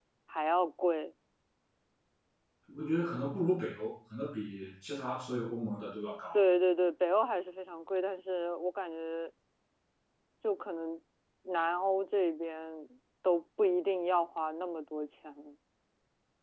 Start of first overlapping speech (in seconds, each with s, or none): none